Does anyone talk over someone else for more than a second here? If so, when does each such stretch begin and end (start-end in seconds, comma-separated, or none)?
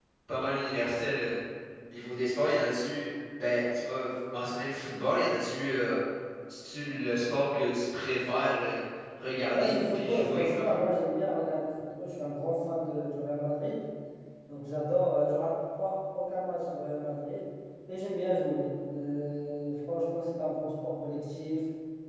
9.5-10.8